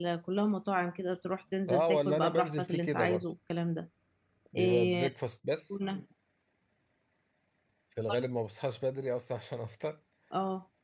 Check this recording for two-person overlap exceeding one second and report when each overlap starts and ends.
1.7-3.2

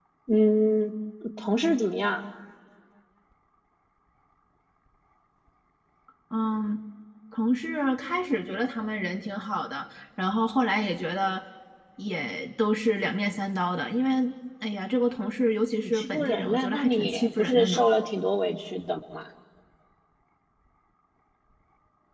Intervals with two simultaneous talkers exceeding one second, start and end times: 15.8-17.8

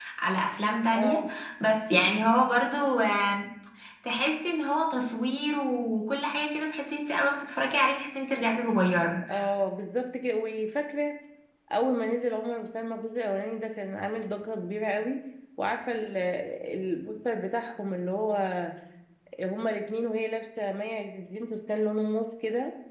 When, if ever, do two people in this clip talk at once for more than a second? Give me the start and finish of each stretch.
none

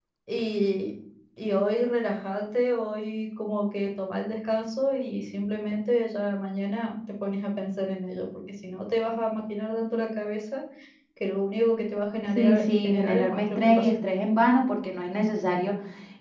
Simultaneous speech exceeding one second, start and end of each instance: 12.4-14.0

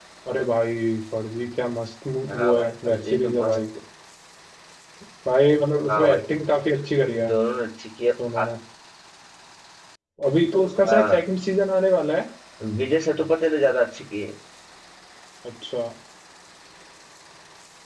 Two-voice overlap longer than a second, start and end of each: 2.3-3.6

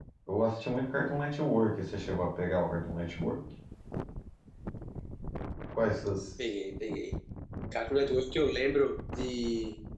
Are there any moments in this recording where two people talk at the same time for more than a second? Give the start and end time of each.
none

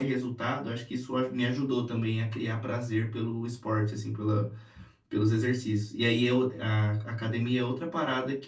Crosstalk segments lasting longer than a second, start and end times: none

